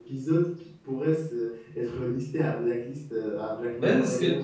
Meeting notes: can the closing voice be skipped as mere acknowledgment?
No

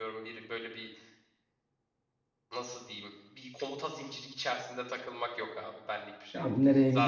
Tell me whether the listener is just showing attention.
No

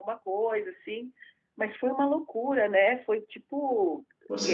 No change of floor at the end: No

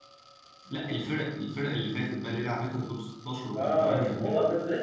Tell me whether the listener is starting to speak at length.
Yes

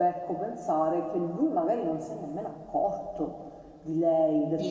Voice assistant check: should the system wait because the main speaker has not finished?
Yes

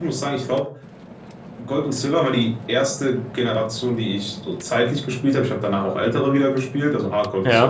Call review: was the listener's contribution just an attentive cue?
Yes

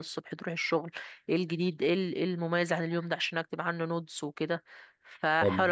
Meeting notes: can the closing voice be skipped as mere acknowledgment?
No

